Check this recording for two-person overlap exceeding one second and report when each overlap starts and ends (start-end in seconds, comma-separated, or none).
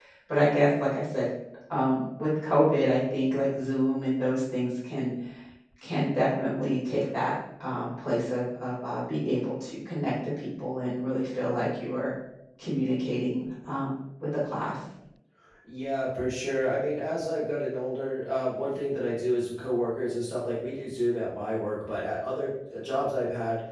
none